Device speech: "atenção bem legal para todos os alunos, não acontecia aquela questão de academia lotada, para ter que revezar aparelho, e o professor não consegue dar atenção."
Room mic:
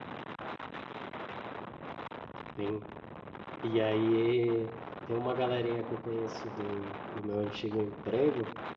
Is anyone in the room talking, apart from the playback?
Yes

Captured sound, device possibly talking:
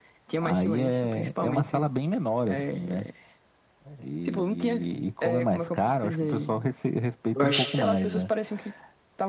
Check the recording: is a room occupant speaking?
Yes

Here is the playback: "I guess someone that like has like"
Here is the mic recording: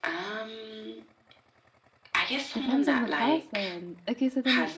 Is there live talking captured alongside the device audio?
Yes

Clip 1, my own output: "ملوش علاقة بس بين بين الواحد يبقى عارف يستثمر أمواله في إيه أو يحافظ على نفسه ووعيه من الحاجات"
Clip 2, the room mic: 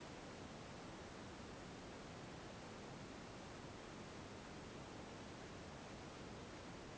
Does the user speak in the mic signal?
No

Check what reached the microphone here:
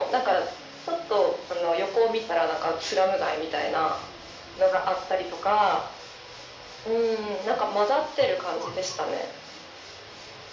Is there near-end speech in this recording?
Yes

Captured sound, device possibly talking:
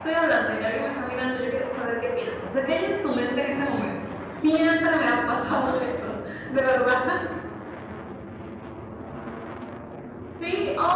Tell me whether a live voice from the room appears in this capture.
Yes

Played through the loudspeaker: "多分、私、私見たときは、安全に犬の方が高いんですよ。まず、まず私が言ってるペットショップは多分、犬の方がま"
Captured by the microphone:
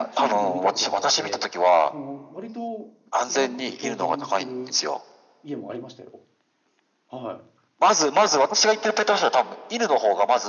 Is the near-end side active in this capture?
Yes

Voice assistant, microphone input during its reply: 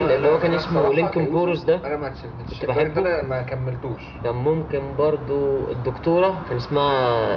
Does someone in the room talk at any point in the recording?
No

